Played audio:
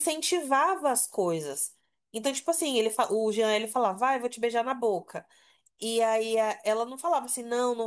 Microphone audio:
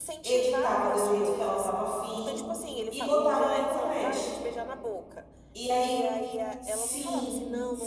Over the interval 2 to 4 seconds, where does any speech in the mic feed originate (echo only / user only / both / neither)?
both